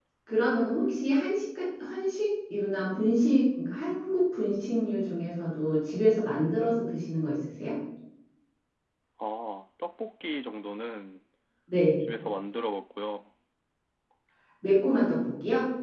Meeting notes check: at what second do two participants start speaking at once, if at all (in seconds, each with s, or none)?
none